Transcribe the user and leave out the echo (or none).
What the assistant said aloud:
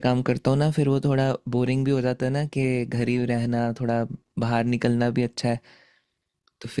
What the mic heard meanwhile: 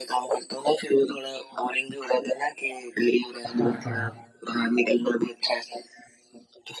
हाँ